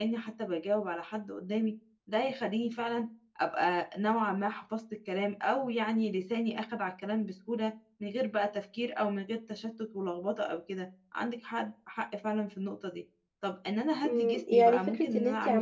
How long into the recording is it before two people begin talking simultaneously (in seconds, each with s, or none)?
14.0 s